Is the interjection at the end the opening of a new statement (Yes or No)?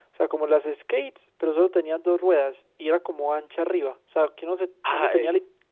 Yes